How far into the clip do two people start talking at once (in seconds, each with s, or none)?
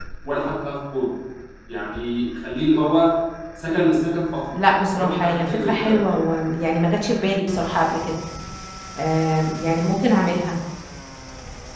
4.9 s